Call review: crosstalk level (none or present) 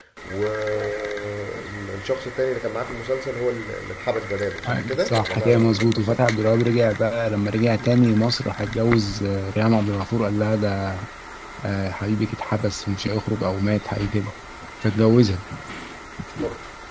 present